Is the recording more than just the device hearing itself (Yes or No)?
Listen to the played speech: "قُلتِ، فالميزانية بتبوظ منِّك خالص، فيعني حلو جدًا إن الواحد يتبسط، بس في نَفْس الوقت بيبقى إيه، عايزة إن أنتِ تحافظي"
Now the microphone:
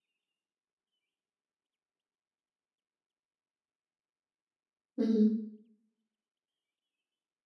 Yes